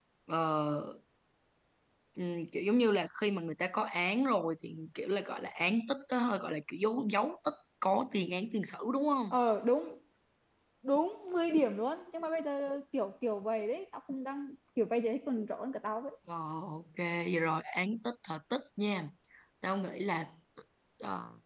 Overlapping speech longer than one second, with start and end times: none

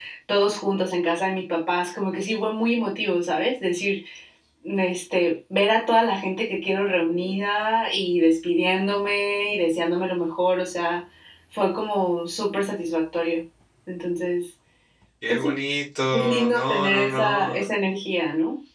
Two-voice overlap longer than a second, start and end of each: 16.1-17.6

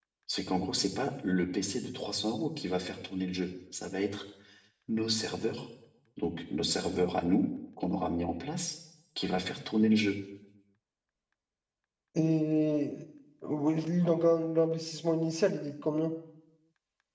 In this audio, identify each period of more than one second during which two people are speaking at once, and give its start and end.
none

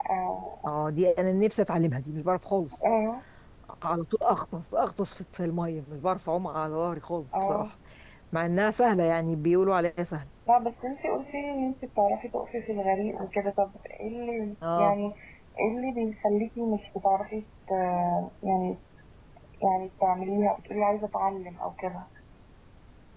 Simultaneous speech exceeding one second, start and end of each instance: none

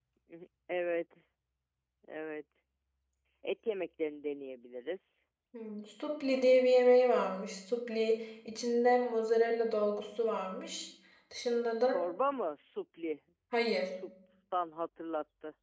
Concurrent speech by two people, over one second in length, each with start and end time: none

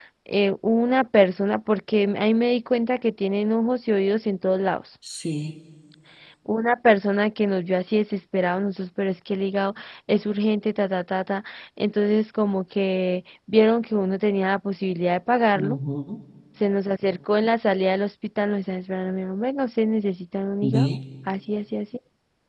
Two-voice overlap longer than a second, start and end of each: none

